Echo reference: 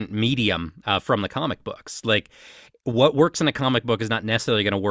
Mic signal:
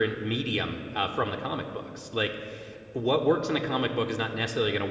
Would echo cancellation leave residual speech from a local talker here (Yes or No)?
No